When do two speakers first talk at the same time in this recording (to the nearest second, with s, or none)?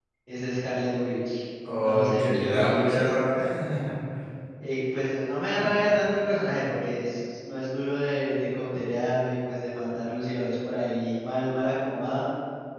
2 s